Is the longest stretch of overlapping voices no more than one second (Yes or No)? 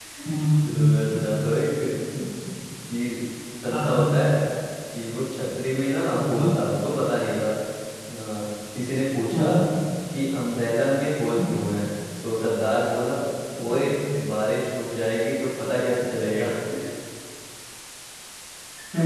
Yes